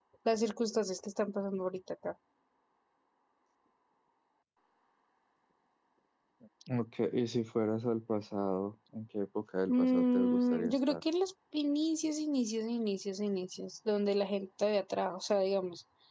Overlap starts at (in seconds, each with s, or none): 9.7 s